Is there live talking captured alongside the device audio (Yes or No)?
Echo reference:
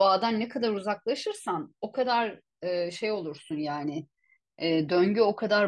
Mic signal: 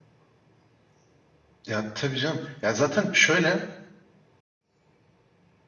Yes